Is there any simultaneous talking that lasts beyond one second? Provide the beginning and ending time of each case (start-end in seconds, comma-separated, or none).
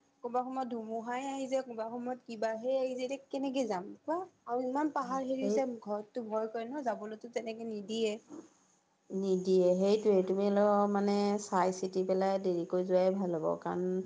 none